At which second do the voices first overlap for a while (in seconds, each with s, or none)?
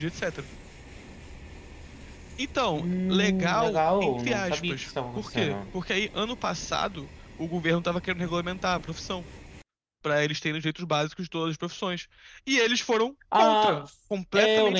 2.7 s